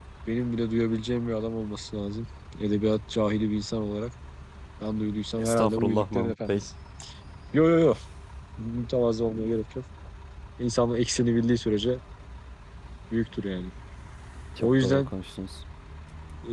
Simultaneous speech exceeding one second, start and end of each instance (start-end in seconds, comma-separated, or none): 5.4-6.6